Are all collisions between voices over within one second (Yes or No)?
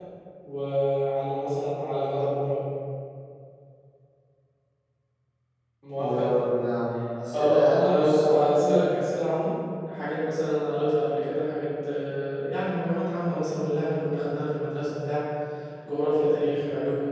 No